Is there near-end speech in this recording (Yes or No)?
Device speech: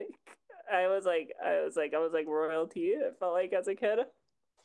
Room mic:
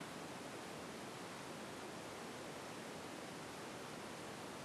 No